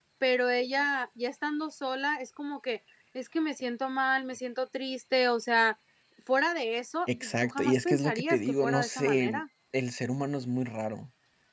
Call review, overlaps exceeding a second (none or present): present